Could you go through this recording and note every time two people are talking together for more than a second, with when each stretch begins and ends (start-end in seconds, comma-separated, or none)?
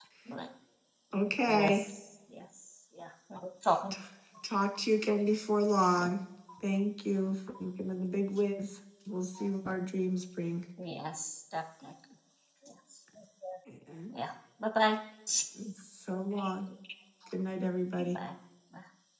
none